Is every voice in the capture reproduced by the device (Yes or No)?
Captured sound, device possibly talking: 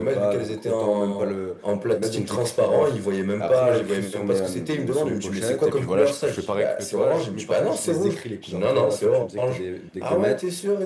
No